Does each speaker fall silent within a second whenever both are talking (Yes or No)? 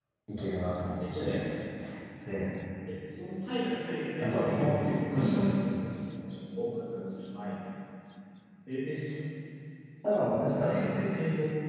No